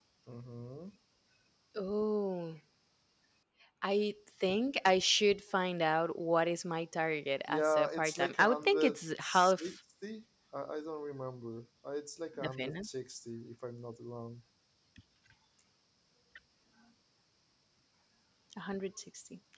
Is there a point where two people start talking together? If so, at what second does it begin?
7.5 s

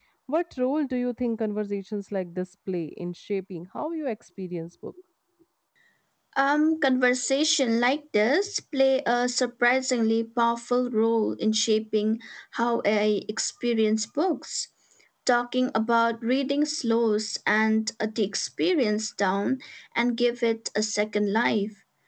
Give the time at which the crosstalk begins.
none

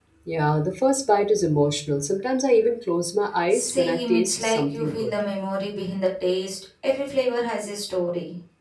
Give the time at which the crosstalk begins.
3.5 s

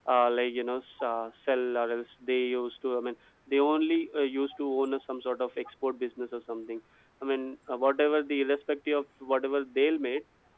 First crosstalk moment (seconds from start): none

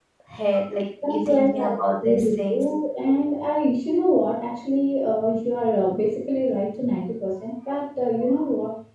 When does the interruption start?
1.1 s

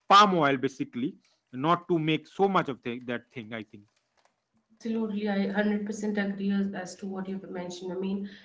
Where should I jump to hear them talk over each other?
none

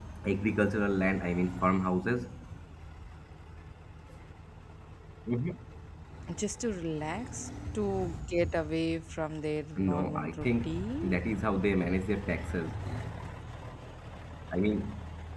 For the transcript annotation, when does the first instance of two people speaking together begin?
9.8 s

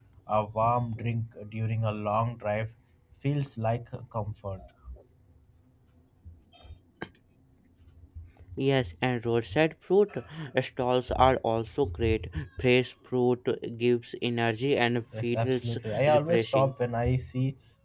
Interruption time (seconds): 15.1 s

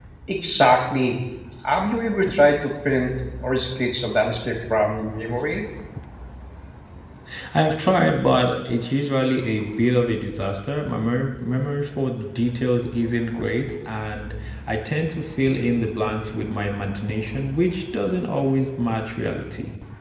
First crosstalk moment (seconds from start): none

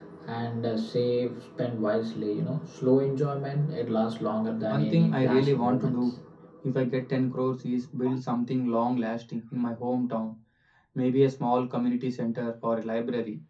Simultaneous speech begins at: 4.7 s

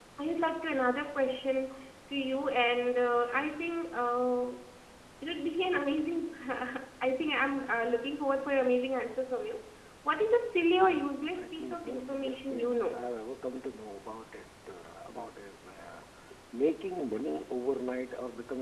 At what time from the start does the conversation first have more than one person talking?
11.4 s

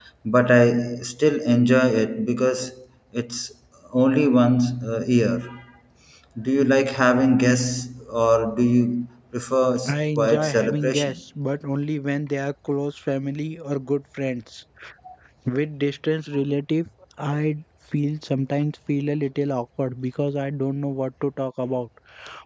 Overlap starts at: 9.8 s

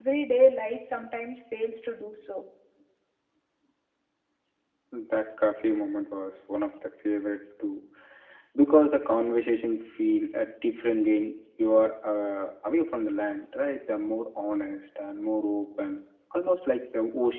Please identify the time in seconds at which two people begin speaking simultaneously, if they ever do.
none

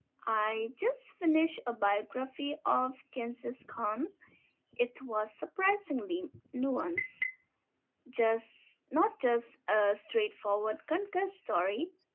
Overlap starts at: none

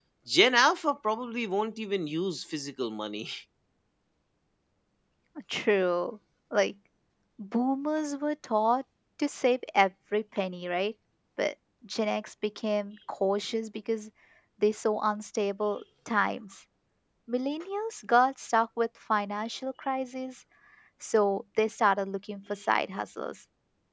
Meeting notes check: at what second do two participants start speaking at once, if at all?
none

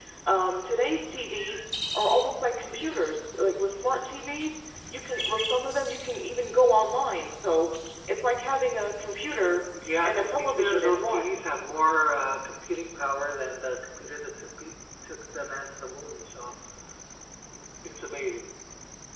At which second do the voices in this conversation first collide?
10.0 s

